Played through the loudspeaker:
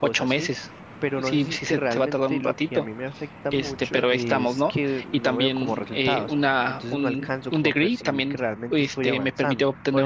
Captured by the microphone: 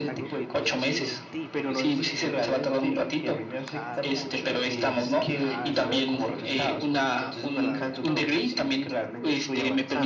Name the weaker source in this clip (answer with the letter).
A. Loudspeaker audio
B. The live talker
B